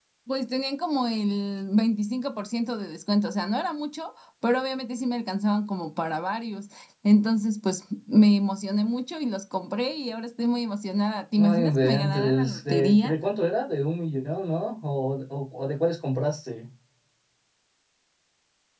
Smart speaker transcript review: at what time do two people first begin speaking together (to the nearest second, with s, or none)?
11 s